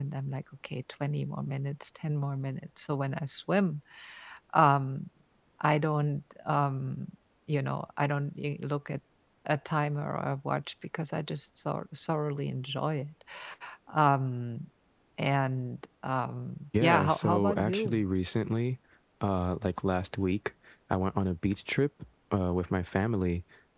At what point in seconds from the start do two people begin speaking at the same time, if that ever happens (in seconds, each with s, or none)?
16.7 s